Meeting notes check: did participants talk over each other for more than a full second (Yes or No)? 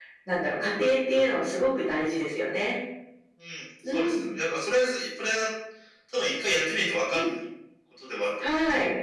No